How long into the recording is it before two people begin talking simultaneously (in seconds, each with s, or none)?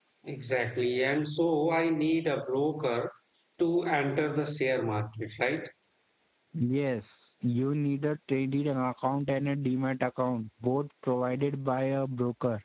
none